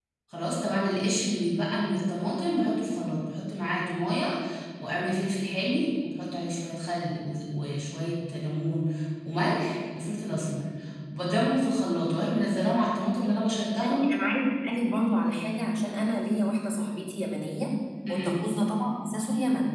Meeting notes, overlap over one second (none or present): none